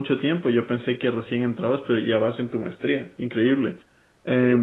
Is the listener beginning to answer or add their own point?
No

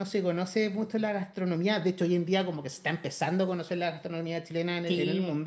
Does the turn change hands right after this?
Yes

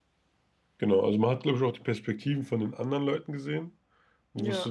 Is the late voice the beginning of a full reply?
No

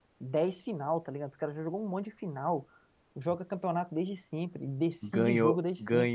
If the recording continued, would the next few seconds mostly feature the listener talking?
Yes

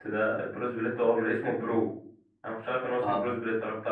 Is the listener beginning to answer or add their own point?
No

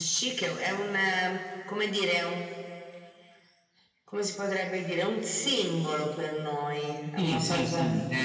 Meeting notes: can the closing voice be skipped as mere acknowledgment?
No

